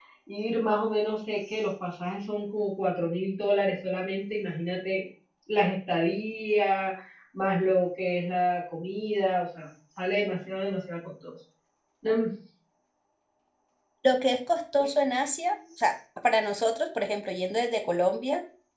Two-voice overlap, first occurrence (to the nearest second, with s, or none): none